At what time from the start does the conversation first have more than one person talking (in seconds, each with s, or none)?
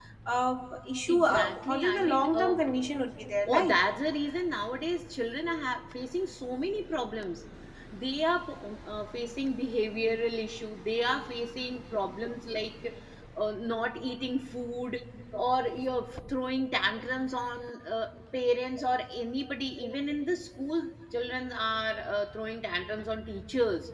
1.1 s